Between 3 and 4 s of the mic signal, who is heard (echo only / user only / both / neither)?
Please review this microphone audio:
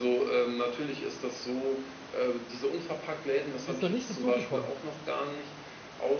both